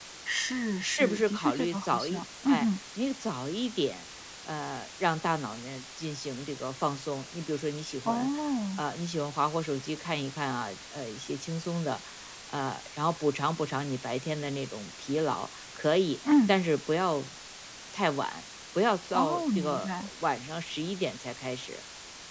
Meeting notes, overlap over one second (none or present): present